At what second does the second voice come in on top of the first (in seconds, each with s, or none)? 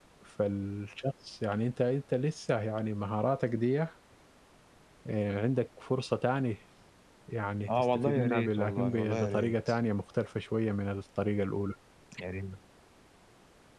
8.0 s